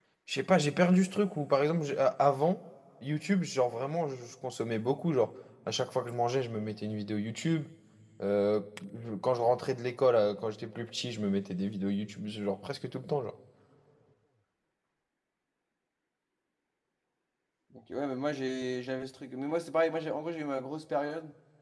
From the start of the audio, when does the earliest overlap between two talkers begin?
none

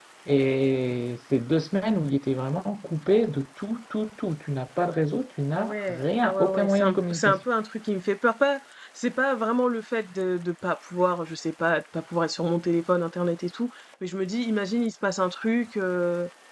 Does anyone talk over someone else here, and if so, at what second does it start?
5.6 s

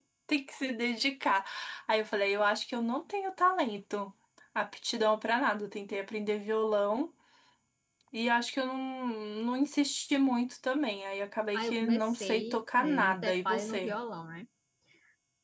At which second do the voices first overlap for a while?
11.5 s

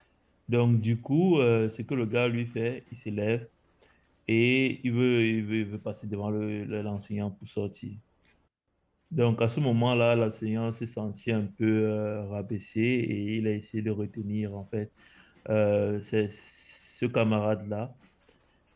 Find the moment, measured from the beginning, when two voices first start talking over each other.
none

